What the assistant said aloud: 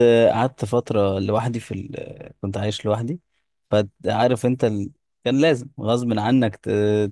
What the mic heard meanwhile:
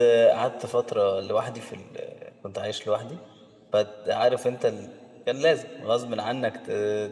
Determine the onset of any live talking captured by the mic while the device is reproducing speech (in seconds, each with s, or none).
none